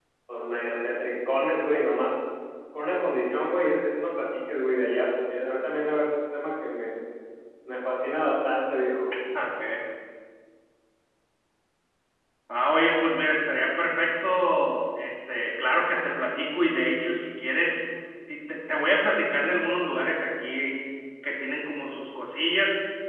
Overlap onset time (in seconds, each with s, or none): none